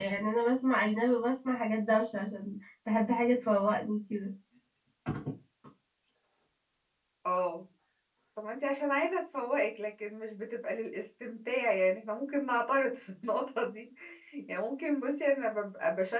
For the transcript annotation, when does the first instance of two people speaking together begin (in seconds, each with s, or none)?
none